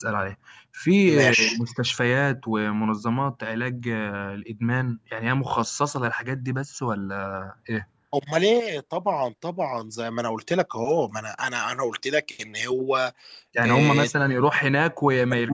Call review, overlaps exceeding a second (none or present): none